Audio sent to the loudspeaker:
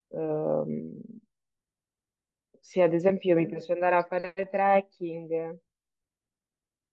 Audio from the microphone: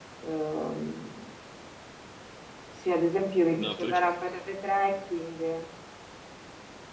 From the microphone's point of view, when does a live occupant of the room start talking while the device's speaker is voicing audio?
4 s

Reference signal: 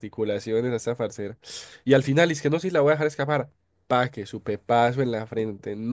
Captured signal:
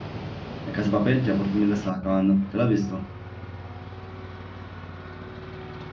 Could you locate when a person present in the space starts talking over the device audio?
1 s

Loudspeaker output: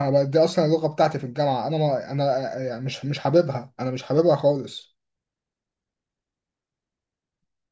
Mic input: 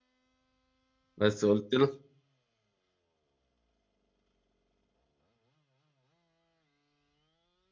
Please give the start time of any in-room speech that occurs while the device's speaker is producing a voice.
1 s

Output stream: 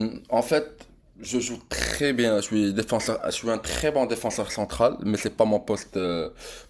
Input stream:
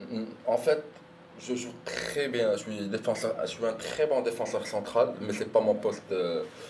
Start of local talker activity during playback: none

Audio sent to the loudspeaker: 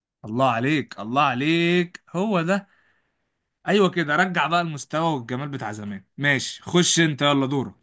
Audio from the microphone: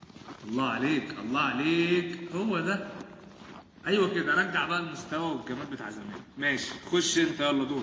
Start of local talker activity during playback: none

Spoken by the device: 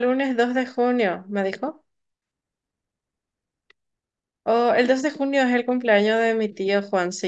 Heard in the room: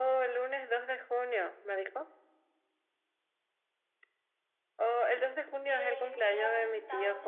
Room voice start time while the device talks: 6 s

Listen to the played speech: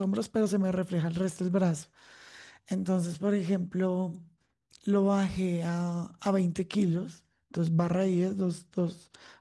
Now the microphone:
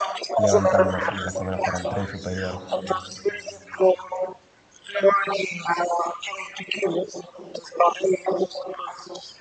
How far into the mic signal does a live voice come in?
0 s

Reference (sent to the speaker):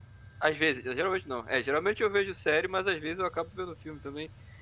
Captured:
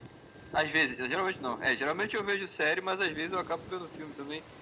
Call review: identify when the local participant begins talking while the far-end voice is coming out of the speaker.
none

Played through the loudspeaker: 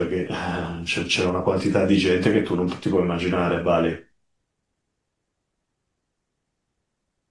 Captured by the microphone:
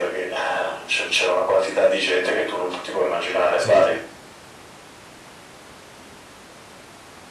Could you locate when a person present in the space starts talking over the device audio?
4 s

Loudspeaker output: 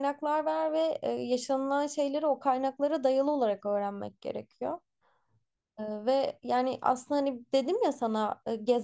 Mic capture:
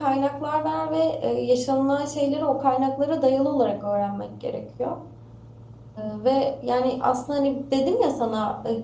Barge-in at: none

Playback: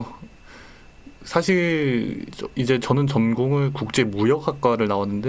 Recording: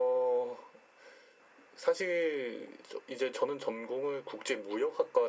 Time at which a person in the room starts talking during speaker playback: none

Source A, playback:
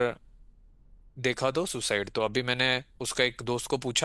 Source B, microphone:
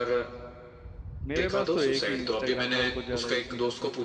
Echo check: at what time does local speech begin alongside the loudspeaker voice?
1 s

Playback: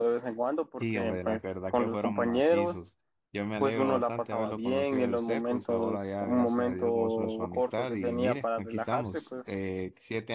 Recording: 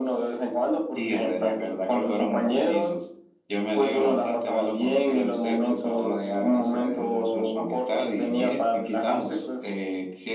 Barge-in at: none

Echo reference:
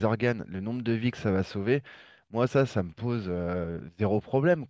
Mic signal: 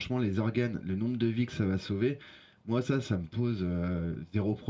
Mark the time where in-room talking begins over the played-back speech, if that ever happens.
none

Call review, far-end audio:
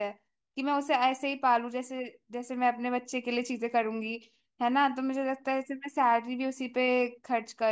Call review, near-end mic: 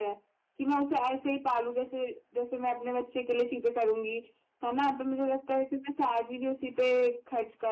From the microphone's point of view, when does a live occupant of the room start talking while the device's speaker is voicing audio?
none

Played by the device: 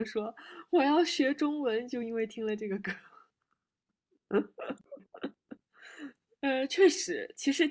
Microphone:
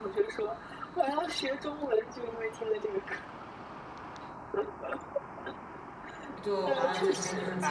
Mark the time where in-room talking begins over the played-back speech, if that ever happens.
6 s

